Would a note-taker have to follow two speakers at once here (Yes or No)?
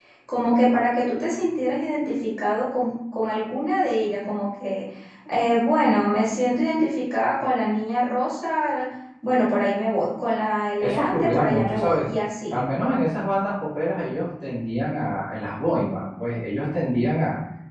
Yes